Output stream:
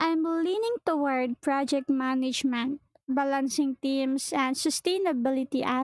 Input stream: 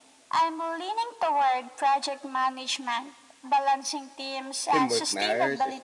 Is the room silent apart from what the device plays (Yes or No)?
No